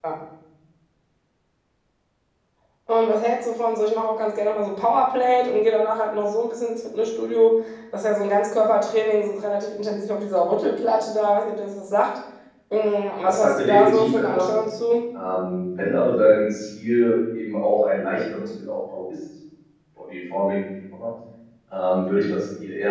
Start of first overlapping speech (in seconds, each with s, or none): 13.2 s